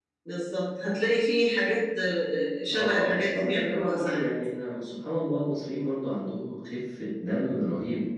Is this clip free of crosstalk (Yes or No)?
No